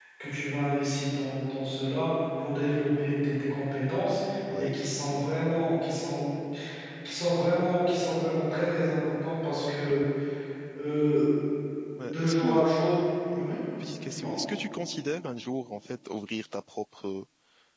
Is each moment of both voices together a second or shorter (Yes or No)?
Yes